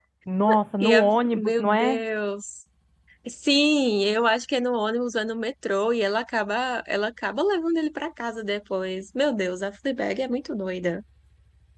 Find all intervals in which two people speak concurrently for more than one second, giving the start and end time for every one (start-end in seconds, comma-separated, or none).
0.8-2.0